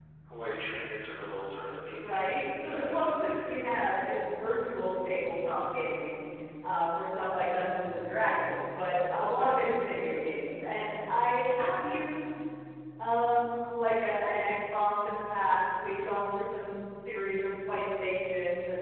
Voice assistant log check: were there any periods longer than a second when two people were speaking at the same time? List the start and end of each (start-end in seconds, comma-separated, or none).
2.0-3.5